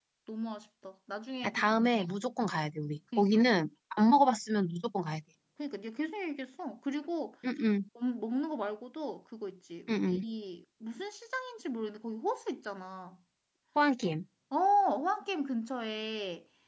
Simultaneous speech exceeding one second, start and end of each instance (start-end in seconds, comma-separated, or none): none